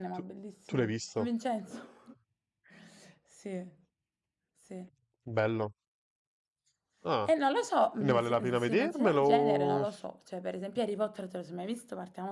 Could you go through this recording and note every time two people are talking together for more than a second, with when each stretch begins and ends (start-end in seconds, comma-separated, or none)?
8.0-9.8